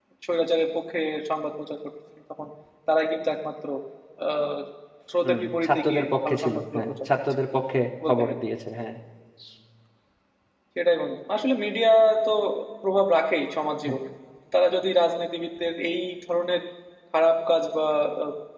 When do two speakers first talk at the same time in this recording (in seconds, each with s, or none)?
5.2 s